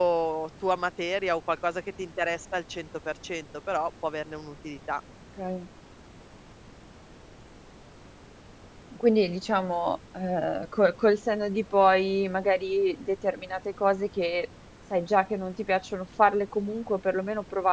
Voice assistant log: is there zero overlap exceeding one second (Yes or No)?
Yes